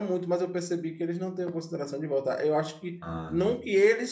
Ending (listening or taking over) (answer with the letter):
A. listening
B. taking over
A